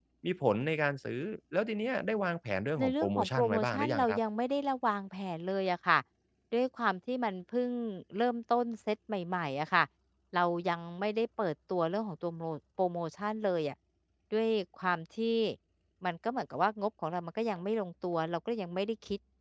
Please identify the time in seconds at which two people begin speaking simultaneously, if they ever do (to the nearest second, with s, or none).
3 s